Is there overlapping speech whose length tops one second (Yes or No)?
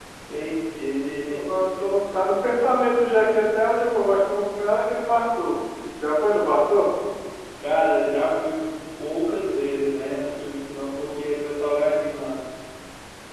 No